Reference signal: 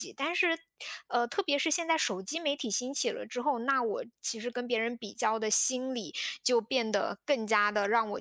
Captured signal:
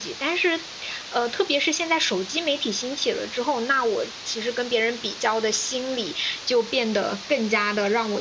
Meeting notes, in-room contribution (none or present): none